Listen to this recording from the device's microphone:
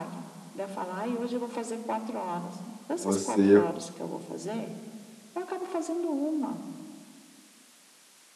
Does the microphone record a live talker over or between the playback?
Yes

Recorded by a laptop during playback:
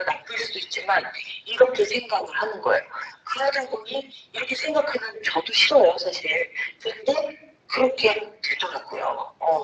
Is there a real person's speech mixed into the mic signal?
No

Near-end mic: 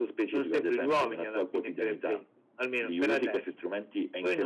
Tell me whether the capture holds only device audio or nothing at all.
Yes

